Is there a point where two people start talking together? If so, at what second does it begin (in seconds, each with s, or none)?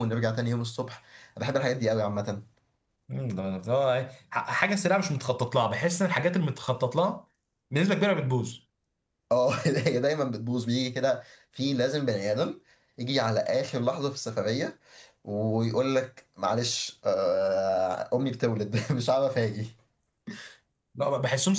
none